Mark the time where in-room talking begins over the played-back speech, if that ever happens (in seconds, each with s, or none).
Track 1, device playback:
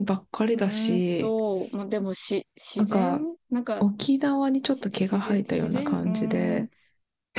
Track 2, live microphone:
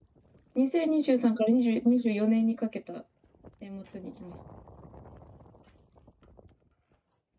0.5 s